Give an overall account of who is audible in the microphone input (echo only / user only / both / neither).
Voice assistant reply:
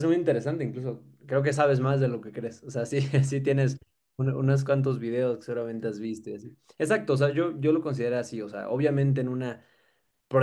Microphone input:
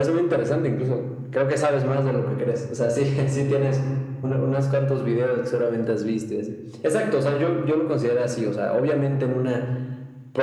echo only